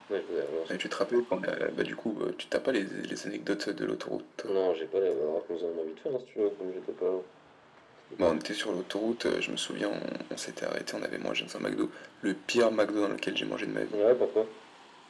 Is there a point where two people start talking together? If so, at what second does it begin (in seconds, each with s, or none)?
none